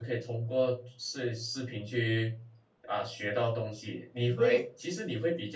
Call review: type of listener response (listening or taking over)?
listening